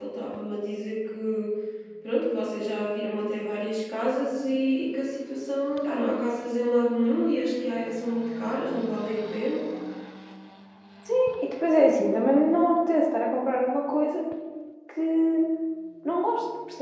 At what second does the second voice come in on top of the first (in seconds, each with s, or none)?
none